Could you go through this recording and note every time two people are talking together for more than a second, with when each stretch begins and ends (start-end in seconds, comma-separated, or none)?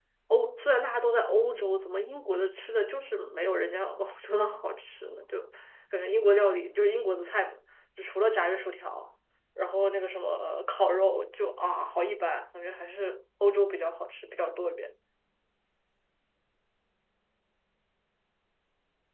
none